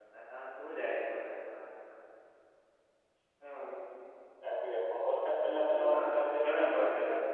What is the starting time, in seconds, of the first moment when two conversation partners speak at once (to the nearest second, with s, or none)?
6 s